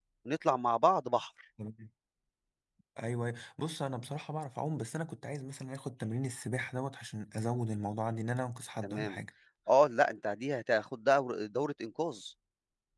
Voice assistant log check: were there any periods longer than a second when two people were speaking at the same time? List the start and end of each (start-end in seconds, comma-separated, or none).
none